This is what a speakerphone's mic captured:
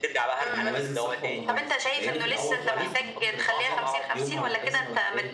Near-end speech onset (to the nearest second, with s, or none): 0 s